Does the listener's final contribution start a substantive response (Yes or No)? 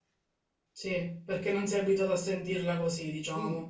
Yes